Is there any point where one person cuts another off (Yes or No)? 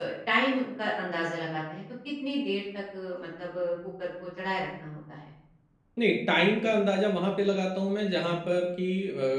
No